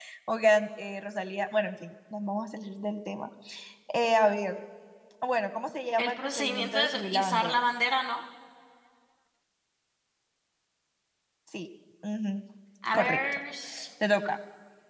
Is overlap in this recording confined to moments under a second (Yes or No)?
No